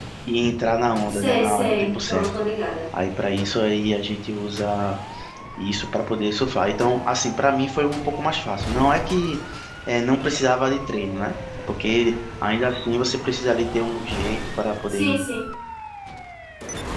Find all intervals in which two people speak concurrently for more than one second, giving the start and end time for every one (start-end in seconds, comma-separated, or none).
1.1-2.3